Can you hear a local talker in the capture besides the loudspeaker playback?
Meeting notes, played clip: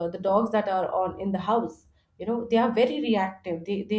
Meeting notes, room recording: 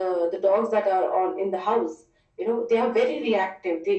No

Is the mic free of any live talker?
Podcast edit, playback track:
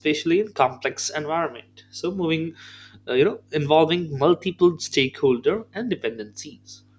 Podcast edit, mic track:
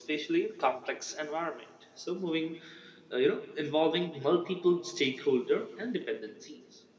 Yes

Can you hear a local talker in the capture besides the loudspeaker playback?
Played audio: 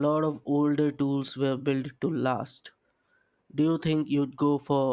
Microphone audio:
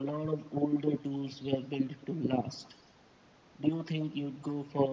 No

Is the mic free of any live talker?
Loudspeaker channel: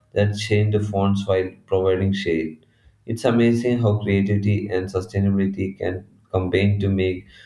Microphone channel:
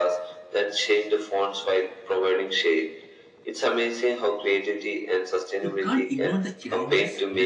No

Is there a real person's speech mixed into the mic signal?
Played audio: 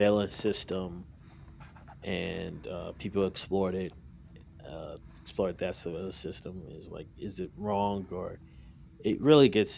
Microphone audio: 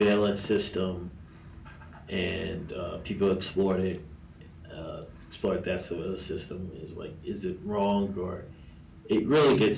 No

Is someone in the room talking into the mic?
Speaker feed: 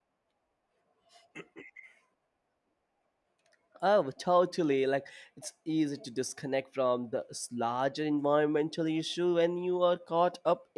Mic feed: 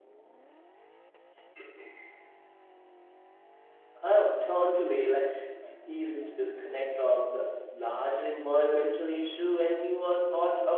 No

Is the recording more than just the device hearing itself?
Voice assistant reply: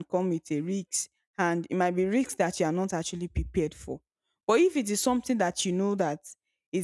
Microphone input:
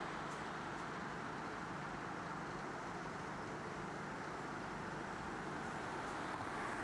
No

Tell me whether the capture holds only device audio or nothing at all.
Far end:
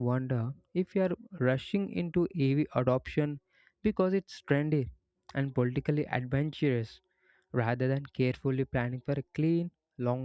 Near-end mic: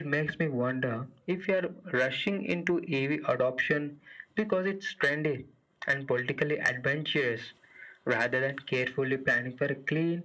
Yes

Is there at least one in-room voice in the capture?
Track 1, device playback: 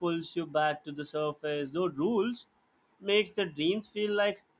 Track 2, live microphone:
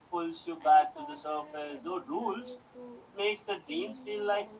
Yes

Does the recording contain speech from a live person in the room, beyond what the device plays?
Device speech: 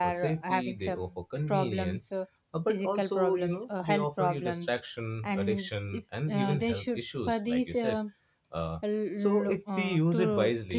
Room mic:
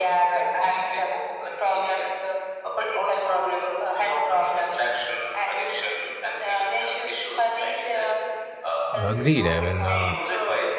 Yes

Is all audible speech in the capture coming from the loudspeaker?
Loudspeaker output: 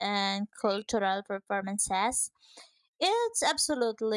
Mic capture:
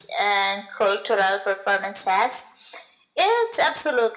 Yes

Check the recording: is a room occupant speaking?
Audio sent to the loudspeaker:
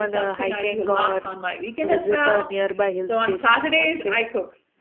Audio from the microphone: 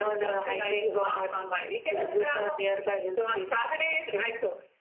No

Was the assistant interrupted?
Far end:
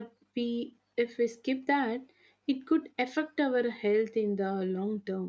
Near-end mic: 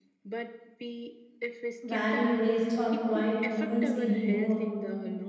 Yes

